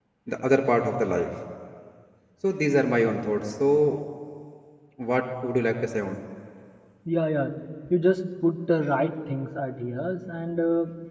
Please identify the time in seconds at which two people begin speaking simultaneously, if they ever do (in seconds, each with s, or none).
none